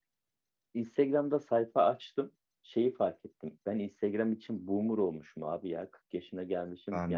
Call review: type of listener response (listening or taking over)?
listening